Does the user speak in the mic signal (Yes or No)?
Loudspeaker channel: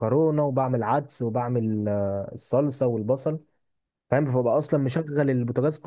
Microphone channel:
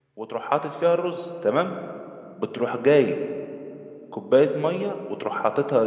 Yes